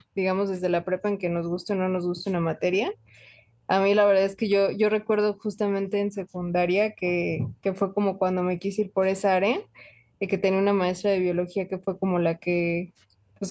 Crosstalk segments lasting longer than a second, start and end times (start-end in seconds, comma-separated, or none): none